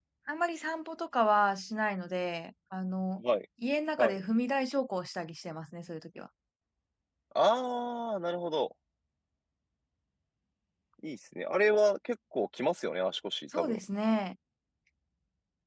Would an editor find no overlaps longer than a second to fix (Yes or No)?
Yes